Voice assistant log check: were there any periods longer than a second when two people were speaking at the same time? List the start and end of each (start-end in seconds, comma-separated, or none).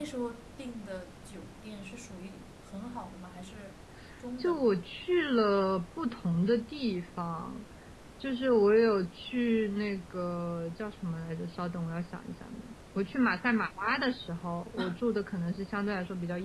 none